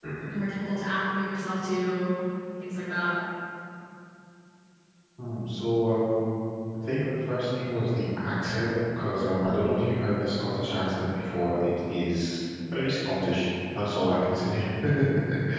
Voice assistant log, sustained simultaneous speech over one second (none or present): none